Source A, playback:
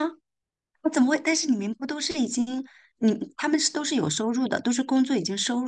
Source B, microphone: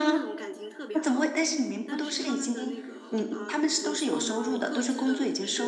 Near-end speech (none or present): present